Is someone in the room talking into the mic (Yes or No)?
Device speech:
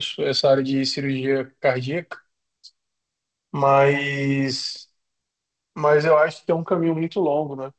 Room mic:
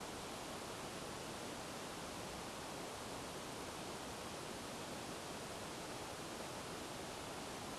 No